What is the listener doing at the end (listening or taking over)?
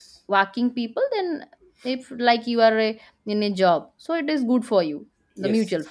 taking over